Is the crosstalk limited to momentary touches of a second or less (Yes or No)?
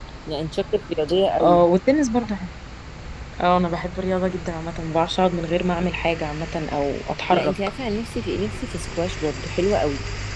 Yes